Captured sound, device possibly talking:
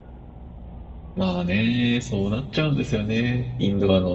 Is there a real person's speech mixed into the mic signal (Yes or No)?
Yes